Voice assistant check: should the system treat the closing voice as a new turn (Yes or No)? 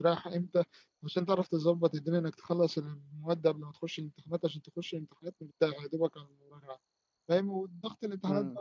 No